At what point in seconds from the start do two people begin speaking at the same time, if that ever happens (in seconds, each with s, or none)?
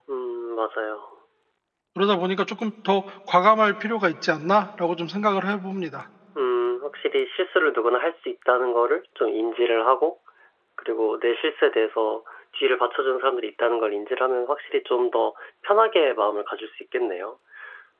none